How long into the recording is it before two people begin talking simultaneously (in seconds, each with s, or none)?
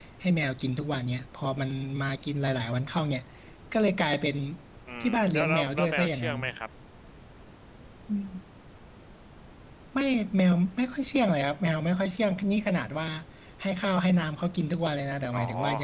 5.0 s